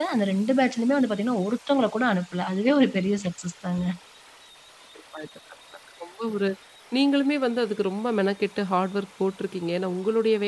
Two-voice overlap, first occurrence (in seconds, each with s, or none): none